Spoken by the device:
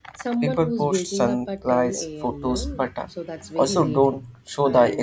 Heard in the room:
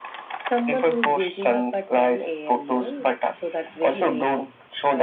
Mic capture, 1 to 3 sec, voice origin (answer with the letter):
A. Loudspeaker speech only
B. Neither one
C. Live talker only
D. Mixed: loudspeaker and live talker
A